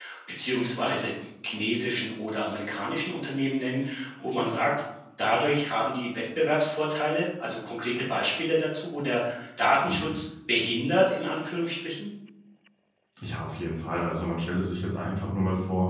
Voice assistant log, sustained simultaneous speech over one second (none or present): none